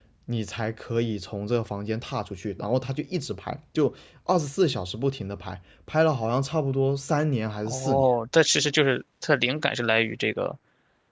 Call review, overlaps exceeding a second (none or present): none